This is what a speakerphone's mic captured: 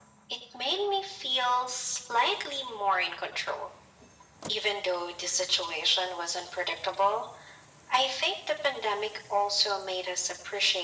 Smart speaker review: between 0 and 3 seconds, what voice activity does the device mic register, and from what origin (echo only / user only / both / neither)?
echo only